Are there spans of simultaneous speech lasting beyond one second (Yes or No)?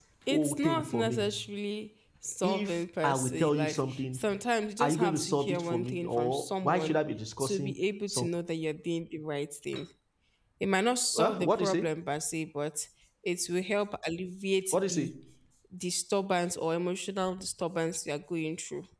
Yes